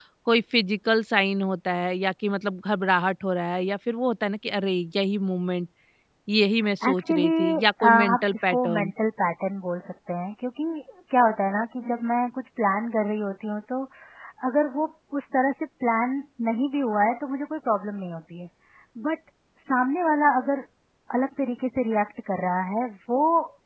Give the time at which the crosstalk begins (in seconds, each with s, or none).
6.9 s